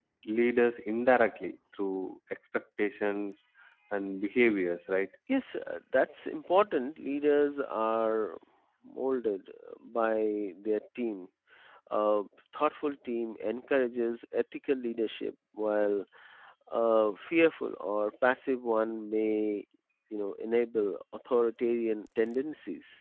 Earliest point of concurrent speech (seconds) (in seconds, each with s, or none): none